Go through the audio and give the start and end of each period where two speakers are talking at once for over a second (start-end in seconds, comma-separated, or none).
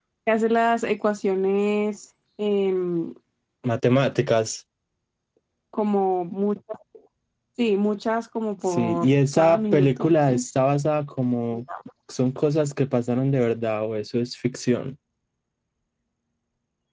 8.7-10.4